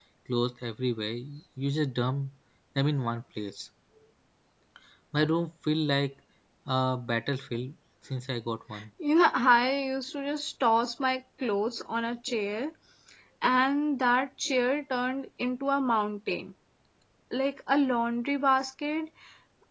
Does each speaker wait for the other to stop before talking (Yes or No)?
Yes